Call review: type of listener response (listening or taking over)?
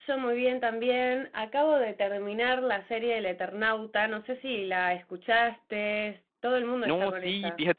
taking over